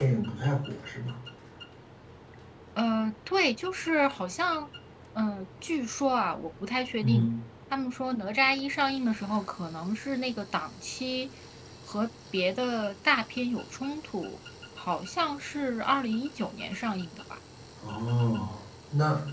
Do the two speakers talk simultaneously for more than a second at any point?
No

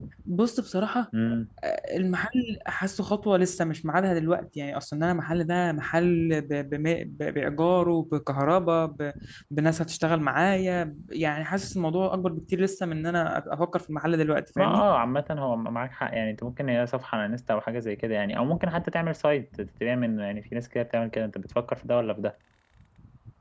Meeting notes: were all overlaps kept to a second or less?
Yes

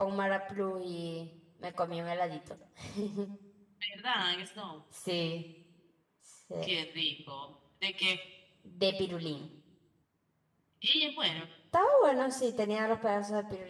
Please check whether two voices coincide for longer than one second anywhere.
No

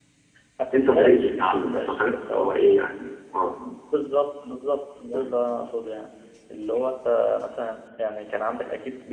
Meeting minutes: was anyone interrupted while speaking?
Yes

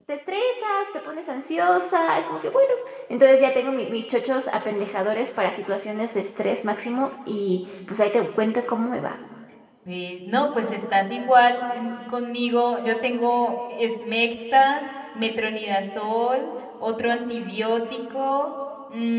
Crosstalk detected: No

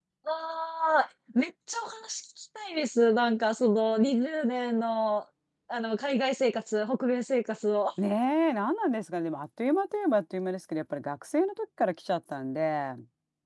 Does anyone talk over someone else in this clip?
No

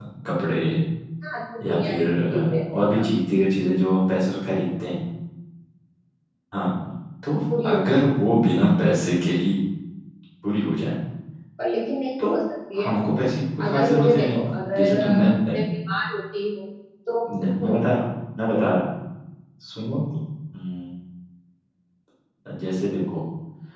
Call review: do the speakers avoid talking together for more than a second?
No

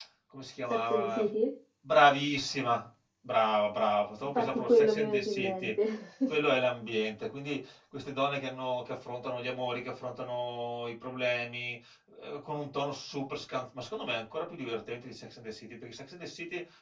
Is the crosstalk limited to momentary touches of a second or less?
No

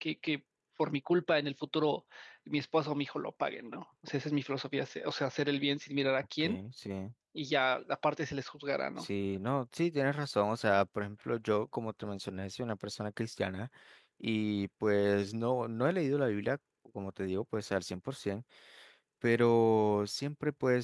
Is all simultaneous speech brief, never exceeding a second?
Yes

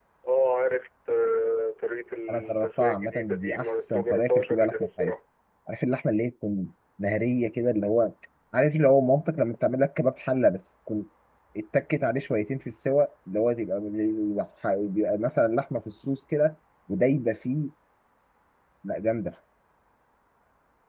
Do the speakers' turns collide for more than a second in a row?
Yes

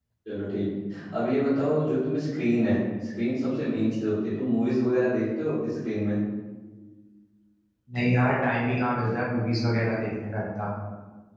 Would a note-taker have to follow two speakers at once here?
No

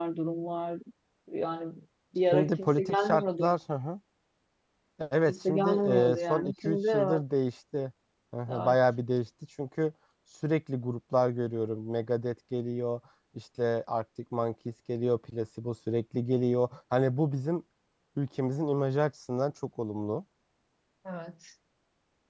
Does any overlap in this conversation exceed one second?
Yes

